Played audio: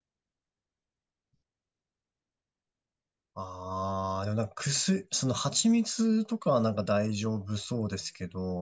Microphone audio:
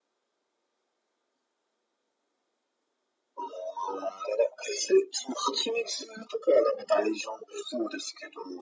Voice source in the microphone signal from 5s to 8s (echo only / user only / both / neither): echo only